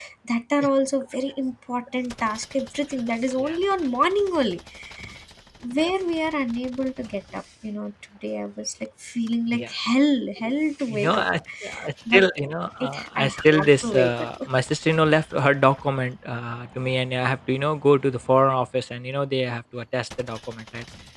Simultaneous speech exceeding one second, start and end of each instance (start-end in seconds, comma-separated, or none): 12.8-14.3